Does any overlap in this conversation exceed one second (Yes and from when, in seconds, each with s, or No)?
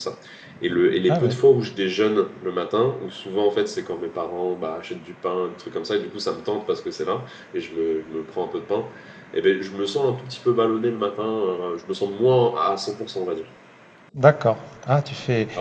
No